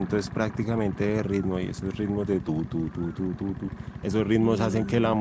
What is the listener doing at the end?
listening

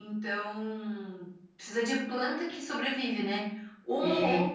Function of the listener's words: listening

